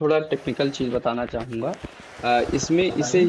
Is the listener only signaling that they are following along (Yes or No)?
Yes